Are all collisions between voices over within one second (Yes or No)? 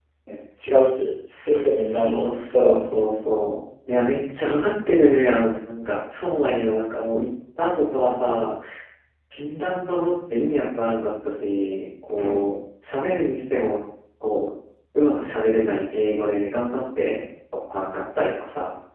No